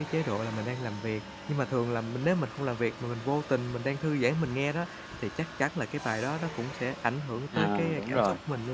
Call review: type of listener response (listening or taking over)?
taking over